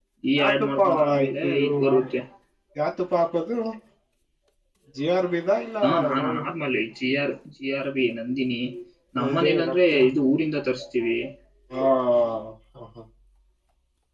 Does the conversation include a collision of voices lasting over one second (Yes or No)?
Yes